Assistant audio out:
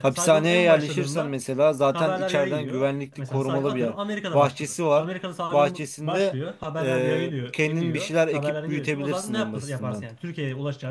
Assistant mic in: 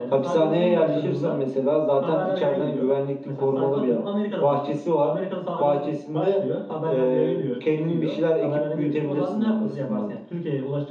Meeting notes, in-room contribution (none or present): none